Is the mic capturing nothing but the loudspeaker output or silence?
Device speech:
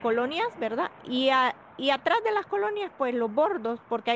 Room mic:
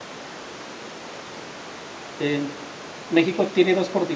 No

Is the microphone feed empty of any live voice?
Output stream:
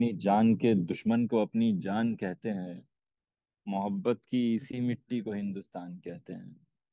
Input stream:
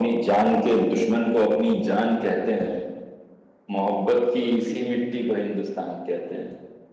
Yes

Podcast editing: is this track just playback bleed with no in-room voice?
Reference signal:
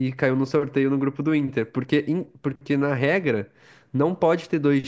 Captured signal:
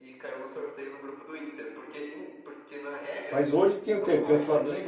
No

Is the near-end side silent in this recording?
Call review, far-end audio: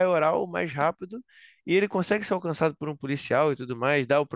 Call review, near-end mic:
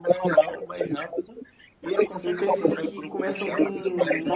No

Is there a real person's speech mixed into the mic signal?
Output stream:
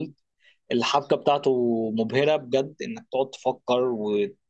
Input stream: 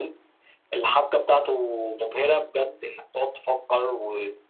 No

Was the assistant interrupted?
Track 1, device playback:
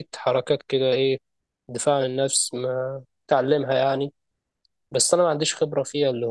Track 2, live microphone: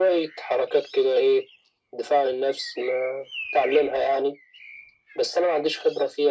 No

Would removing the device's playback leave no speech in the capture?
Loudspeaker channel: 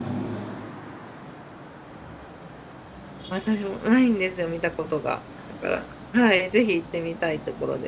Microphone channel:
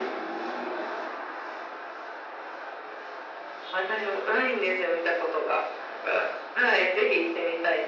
Yes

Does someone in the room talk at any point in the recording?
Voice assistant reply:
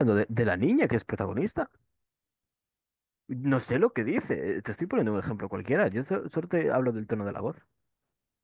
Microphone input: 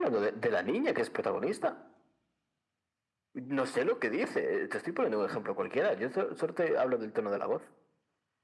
No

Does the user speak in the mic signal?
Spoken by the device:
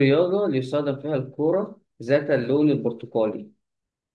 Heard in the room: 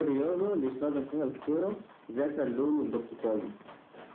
No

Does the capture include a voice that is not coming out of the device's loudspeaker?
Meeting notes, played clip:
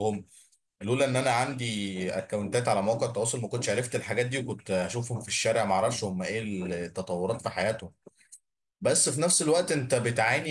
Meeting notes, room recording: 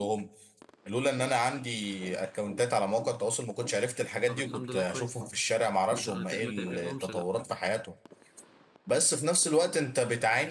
Yes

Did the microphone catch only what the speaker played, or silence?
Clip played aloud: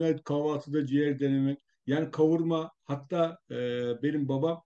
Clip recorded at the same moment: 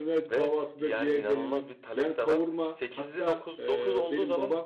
No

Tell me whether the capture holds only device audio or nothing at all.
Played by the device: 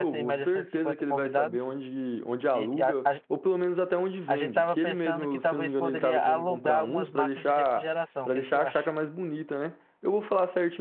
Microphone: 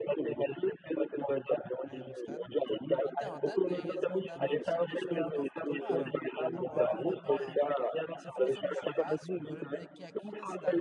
No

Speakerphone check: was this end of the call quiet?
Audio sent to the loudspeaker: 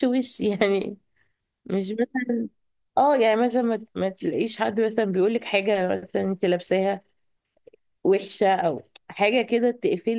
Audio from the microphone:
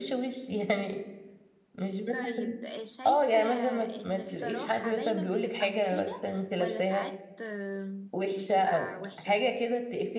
No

